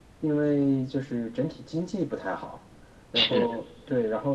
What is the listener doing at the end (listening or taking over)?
listening